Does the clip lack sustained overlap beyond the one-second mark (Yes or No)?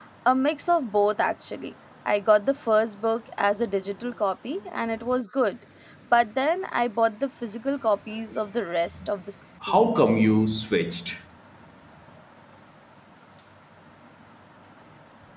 Yes